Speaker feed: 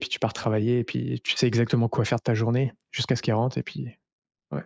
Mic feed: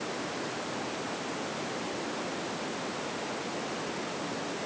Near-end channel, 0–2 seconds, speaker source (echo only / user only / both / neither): neither